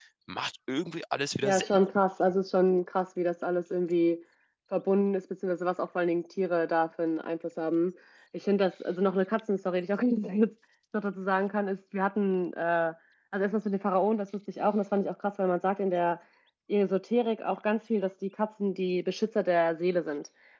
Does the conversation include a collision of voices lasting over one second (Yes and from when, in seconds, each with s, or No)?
No